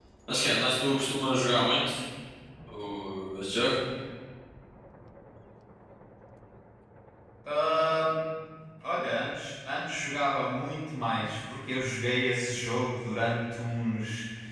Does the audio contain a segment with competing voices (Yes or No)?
No